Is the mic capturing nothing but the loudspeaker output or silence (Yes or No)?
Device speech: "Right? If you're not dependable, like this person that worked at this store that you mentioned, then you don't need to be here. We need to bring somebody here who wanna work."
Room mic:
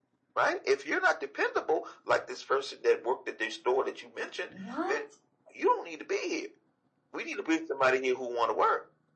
No